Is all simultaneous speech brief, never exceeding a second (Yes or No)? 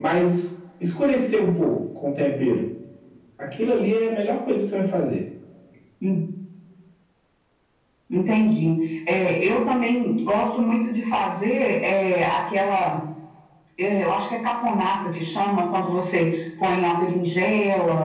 Yes